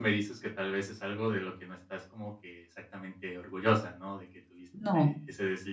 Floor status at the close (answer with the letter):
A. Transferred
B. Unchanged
B